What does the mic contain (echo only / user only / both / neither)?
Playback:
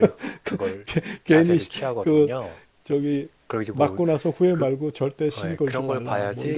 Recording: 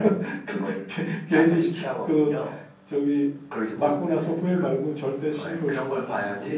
echo only